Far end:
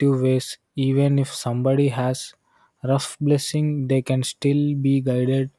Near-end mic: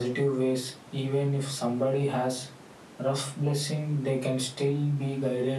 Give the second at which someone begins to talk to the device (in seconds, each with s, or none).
none